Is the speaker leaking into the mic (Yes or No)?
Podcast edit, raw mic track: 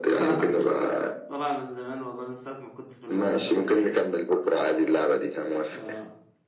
Yes